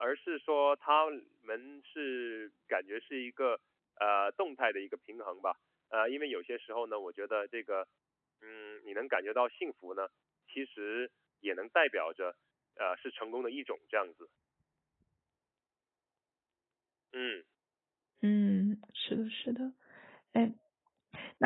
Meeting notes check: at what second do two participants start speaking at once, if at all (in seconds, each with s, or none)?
none